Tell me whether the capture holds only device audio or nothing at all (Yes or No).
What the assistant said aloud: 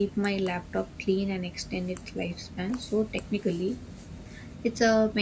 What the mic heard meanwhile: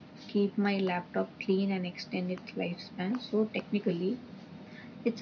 Yes